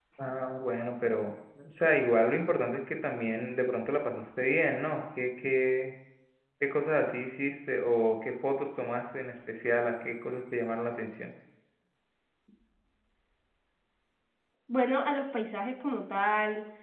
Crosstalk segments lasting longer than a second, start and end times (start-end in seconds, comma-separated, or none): none